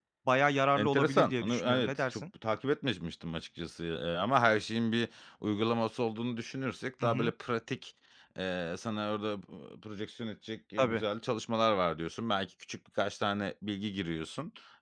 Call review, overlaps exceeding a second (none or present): present